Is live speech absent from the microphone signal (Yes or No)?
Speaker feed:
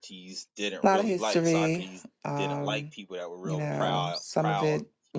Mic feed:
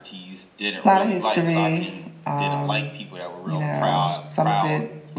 Yes